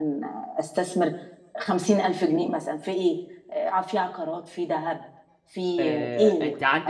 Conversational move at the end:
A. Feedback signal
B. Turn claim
B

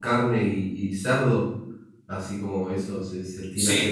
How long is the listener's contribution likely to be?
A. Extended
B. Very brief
A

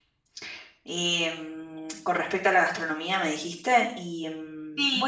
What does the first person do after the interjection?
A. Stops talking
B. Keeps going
A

